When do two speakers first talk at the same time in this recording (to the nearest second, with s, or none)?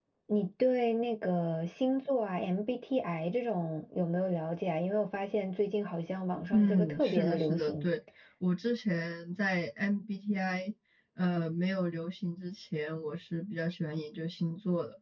7 s